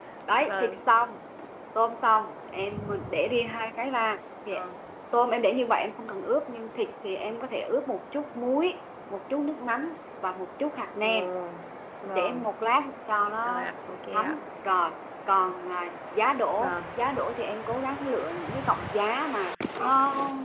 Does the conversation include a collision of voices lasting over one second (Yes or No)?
No